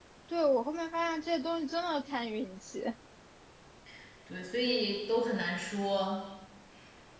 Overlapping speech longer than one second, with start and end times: none

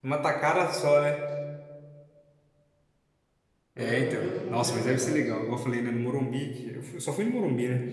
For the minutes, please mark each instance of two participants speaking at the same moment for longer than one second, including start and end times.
3.8-5.2

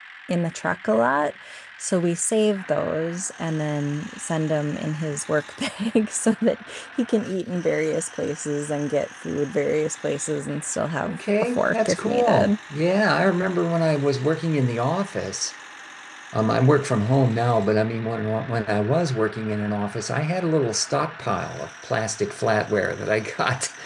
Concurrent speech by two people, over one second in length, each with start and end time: 11.0-12.5

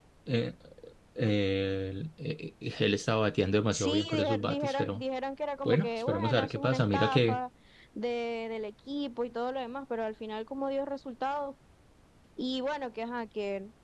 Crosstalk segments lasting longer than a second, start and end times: 3.7-5.0, 5.6-7.4

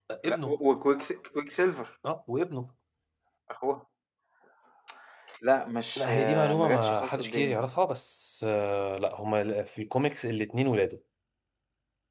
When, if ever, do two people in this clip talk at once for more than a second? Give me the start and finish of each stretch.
6.0-7.7

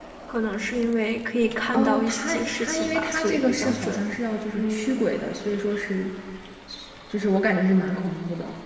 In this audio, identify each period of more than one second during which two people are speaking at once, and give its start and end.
1.7-4.0

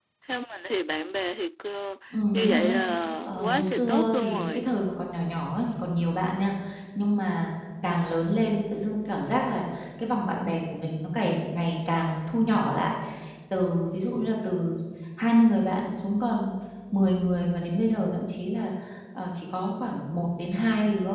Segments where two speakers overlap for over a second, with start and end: 3.3-4.7

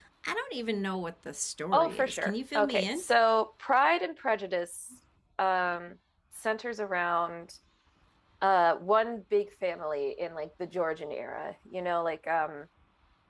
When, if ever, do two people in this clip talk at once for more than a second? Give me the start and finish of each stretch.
1.7-3.0

